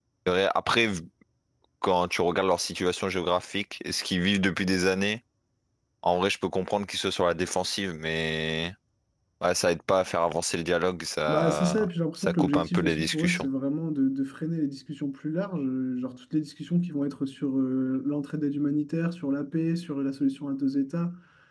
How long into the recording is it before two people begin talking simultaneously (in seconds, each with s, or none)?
11.3 s